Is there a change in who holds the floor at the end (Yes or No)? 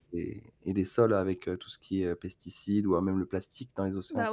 Yes